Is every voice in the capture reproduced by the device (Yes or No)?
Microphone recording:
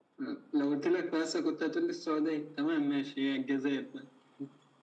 Yes